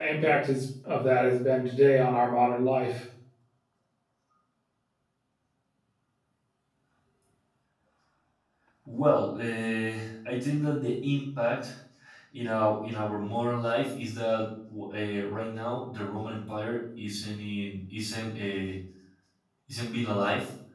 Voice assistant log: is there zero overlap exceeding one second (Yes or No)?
Yes